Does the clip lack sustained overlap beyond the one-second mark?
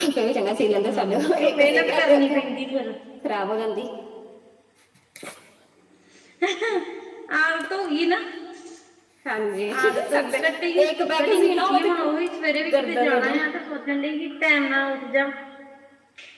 No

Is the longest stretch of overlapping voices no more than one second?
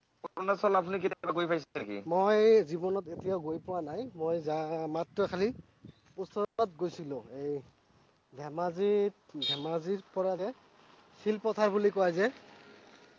Yes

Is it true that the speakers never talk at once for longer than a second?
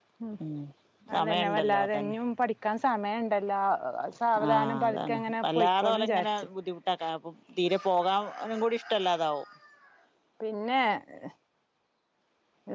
No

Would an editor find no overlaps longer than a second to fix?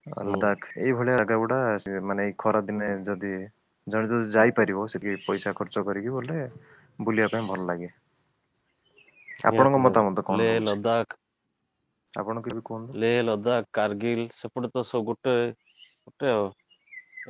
No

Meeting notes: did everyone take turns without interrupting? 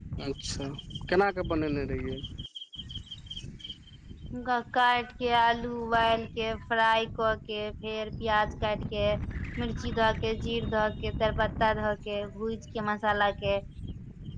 Yes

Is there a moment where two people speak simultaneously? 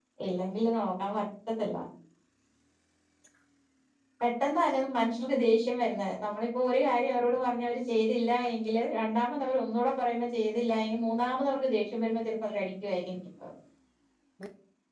No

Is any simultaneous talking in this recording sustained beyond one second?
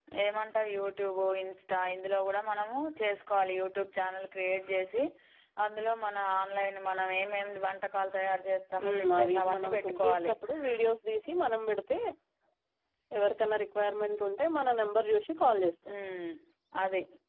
Yes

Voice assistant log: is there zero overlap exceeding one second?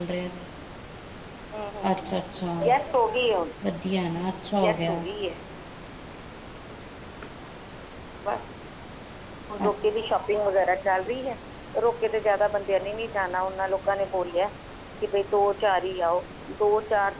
Yes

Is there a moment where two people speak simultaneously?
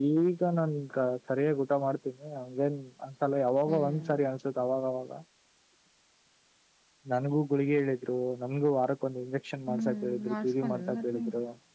Yes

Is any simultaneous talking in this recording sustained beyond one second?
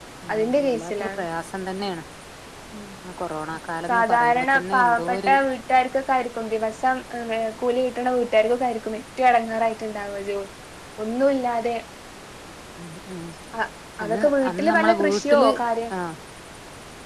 Yes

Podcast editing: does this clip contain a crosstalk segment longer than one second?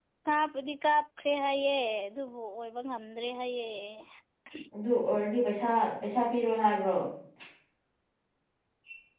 No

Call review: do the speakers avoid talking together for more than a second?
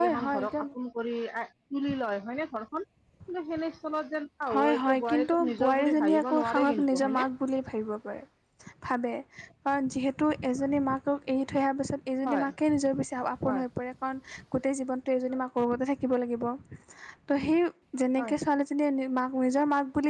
No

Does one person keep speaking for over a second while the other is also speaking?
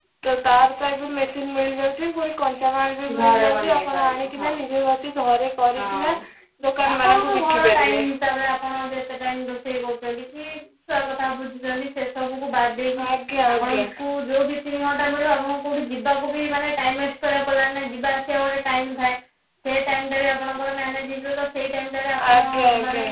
Yes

